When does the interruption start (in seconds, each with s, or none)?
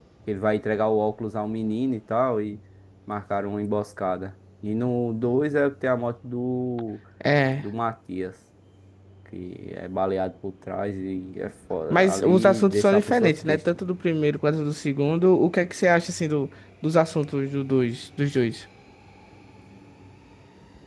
11.9 s